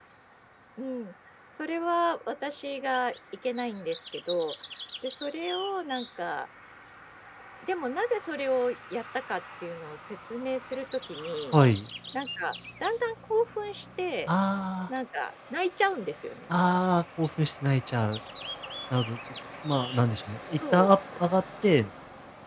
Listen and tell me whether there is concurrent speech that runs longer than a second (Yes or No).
No